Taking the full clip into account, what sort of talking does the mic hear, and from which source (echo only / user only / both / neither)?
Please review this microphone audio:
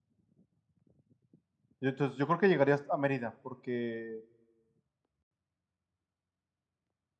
user only